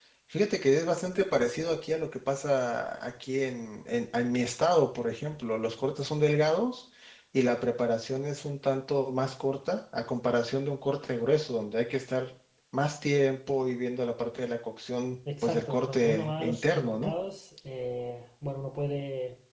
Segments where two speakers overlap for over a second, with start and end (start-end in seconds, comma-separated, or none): 15.4-17.1